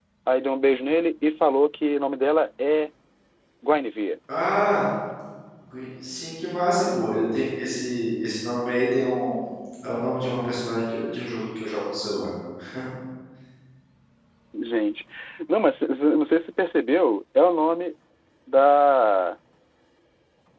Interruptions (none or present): none